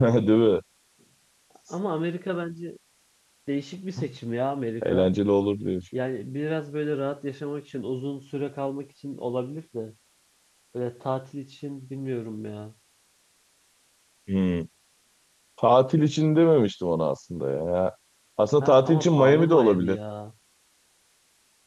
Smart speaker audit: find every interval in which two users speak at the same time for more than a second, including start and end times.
18.6-20.0

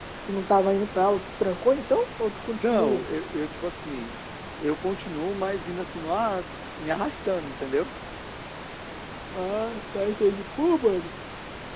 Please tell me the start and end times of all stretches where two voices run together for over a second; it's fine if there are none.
none

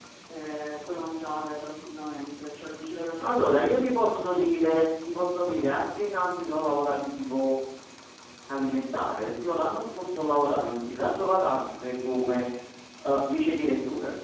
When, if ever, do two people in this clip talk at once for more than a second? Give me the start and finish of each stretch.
none

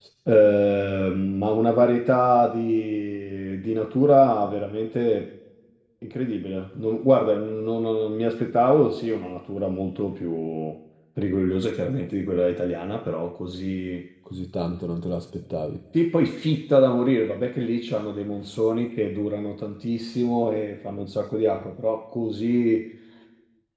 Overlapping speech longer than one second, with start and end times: none

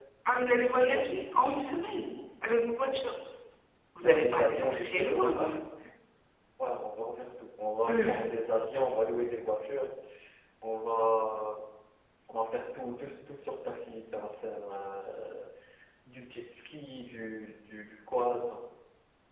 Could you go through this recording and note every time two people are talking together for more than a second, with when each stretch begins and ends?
4.0-5.4

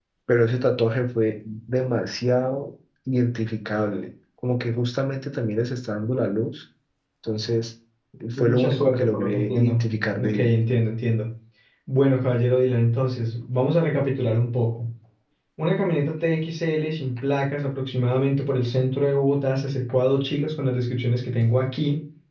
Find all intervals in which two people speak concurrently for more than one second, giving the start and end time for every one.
8.4-9.8

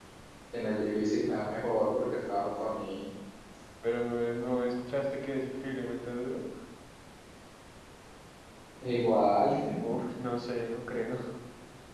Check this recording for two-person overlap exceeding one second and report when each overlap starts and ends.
none

